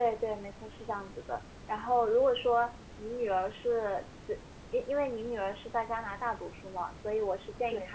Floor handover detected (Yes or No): No